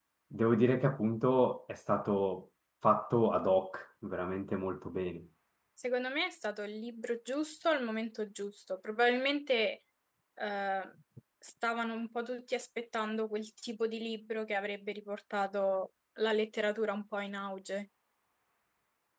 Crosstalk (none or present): none